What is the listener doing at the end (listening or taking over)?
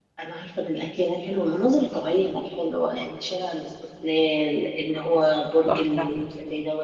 listening